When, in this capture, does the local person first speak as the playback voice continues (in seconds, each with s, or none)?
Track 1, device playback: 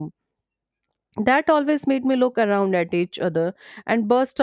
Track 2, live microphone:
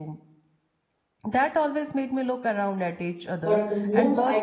3.4 s